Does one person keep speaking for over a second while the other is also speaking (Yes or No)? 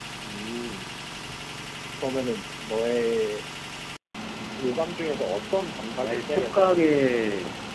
Yes